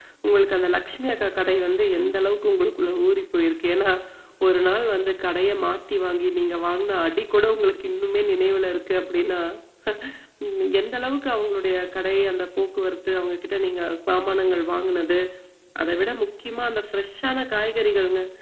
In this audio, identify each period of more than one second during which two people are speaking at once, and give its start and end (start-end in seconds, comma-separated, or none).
none